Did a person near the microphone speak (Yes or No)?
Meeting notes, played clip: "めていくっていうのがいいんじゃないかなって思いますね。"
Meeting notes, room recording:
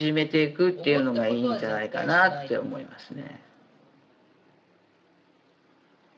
Yes